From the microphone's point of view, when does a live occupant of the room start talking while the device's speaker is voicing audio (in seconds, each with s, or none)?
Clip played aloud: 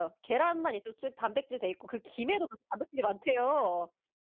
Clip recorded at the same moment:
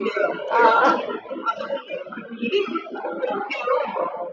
0.5 s